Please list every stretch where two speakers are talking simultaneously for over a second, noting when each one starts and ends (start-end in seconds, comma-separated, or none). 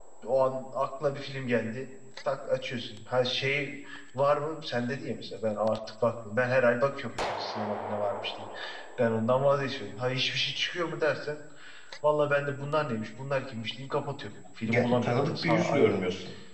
14.6-16.0